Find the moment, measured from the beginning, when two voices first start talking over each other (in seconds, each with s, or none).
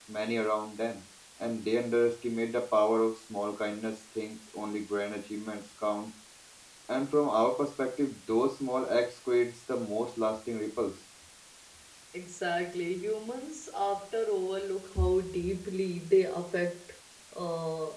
none